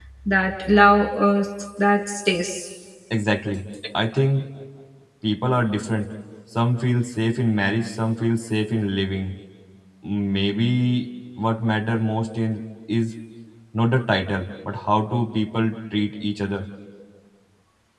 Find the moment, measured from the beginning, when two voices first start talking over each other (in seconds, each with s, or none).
none